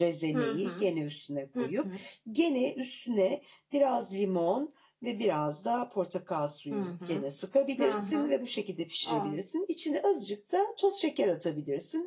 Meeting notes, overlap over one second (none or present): none